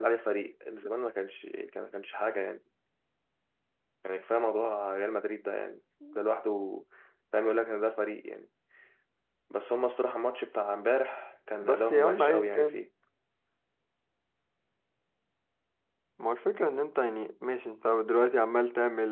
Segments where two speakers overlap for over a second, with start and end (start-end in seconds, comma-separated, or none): 11.6-12.8